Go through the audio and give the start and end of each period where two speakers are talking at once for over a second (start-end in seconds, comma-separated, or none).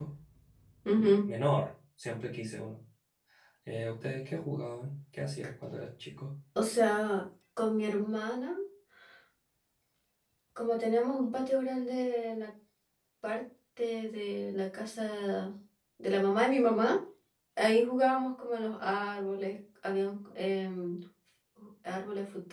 none